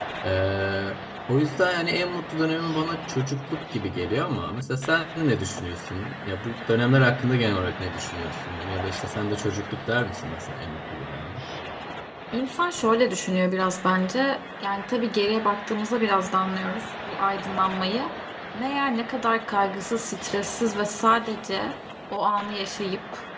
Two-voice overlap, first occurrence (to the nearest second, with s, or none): none